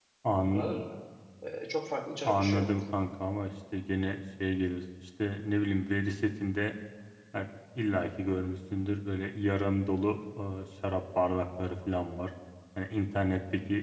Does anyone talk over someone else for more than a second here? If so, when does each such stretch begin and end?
none

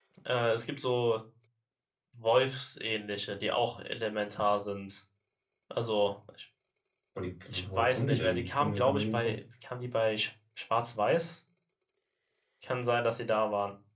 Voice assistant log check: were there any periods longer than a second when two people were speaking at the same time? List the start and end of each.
7.7-9.3

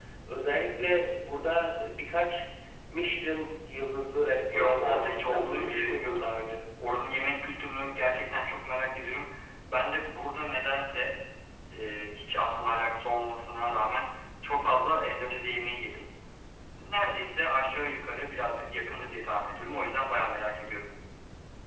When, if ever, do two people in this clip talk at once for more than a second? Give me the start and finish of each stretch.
4.5-6.3

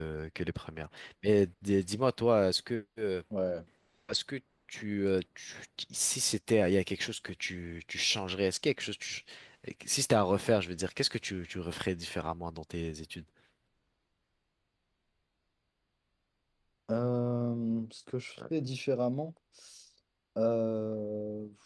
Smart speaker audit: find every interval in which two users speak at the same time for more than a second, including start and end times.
none

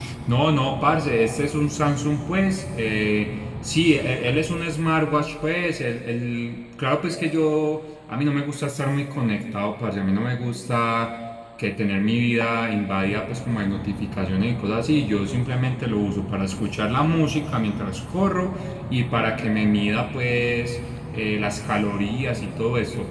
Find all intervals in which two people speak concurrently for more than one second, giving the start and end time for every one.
none

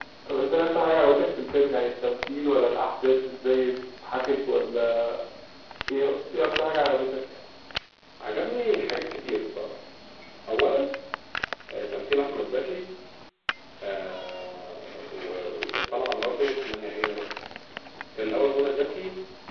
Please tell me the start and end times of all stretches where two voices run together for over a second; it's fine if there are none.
none

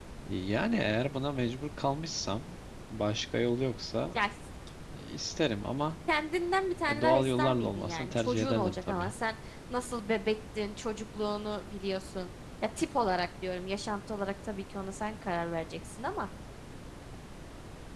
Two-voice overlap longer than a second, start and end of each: 6.9-9.1

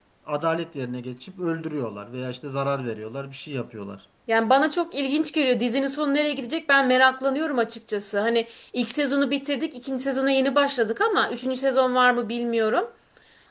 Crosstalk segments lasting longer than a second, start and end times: none

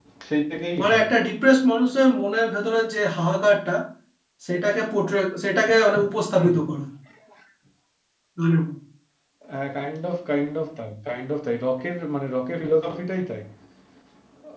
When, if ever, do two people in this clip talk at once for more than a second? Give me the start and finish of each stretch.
none

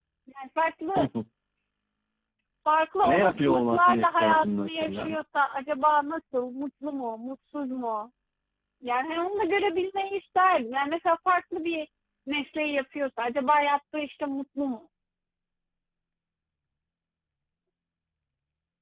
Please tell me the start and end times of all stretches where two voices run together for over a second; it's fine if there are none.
3.0-5.1

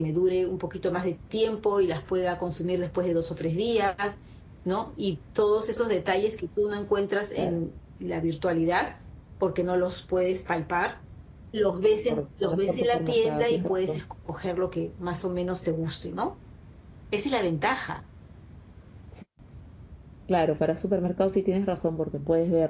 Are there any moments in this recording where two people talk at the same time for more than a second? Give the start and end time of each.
12.1-14.0

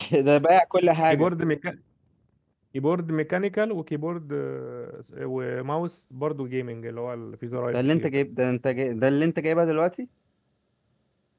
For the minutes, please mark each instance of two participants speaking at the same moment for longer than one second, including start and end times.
none

